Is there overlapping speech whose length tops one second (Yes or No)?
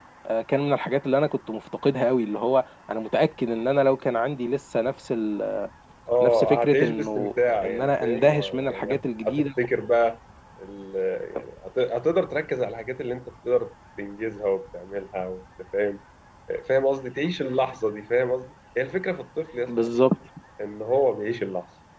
Yes